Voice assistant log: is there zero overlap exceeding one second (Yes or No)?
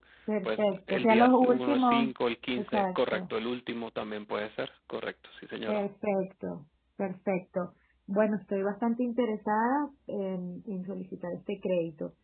No